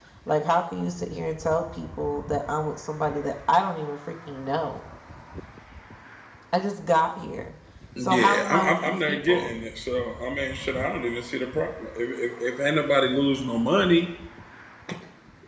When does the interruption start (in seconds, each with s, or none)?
8.0 s